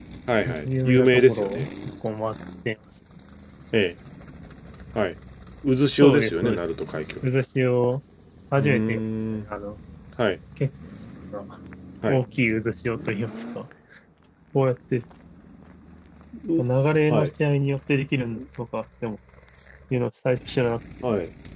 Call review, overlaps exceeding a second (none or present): present